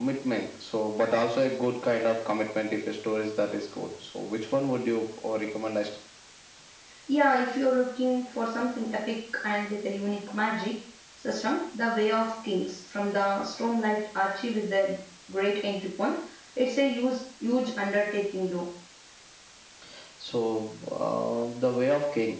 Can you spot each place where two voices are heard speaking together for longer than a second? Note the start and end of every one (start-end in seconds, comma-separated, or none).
none